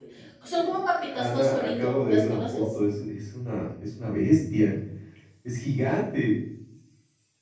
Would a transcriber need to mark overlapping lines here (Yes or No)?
Yes